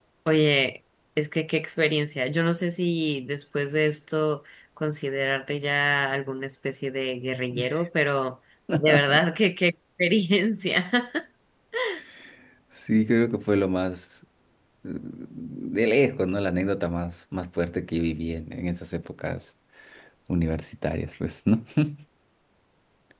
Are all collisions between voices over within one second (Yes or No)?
Yes